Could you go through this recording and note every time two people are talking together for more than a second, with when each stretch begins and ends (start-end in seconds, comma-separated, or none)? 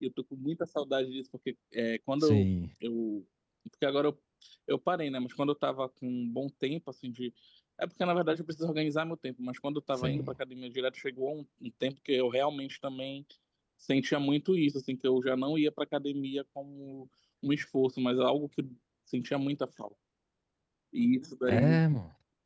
none